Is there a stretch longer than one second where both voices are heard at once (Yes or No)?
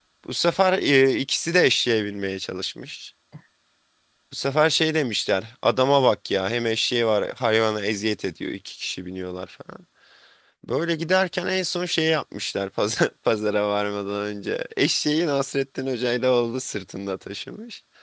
No